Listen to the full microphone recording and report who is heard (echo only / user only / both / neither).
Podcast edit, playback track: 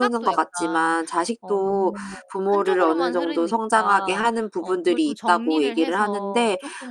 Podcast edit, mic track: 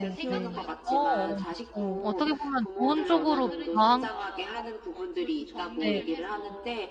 both